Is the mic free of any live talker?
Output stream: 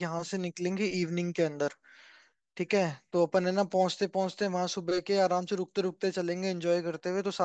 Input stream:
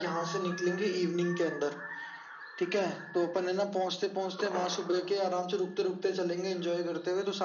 Yes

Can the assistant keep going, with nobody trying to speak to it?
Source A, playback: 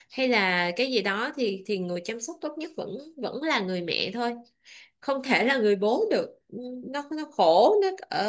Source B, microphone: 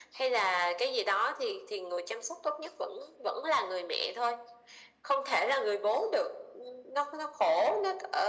Yes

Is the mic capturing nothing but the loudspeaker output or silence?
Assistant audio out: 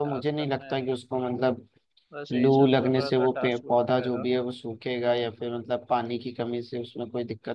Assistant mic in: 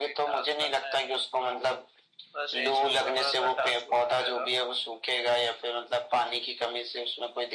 Yes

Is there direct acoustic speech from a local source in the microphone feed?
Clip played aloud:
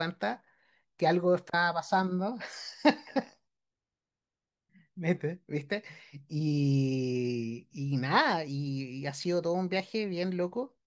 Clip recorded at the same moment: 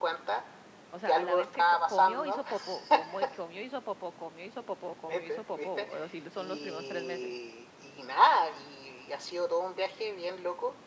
Yes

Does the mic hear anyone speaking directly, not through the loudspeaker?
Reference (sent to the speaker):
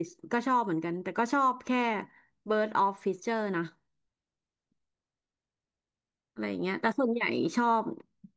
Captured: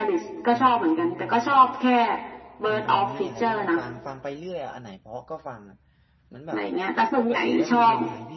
Yes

